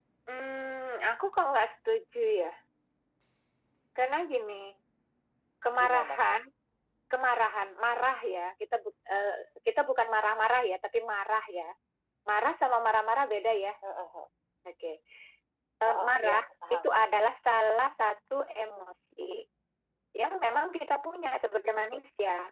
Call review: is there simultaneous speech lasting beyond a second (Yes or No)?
Yes